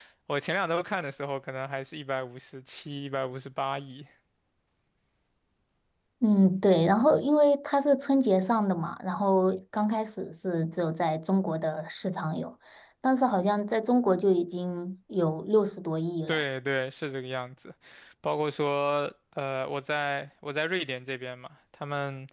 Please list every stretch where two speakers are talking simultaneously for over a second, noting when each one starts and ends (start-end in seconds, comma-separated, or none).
none